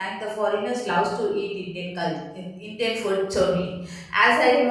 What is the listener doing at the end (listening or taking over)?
listening